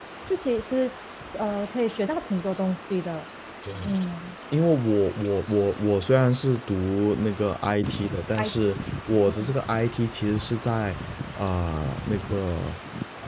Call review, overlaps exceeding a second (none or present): none